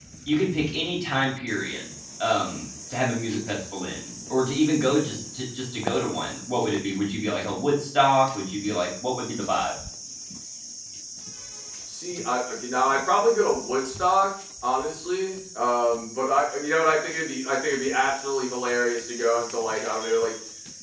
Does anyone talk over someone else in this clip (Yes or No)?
No